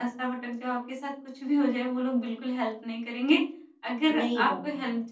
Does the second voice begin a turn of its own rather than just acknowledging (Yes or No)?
No